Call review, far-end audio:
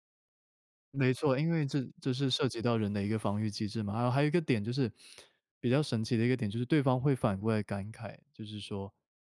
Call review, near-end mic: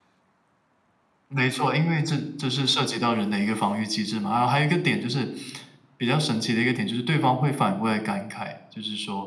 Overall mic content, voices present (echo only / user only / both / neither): echo only